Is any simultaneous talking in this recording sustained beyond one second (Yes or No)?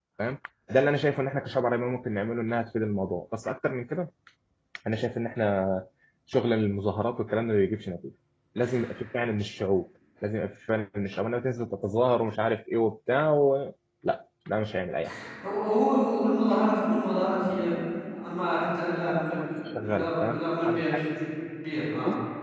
Yes